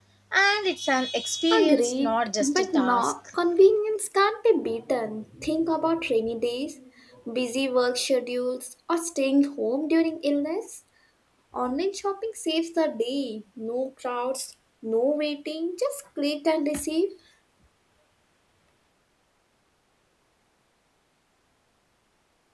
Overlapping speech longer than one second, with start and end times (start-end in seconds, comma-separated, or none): 1.6-3.1